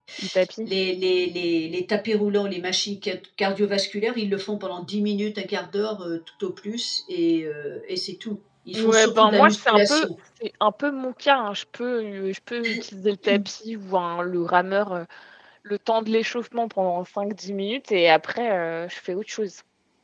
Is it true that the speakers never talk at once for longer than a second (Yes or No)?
No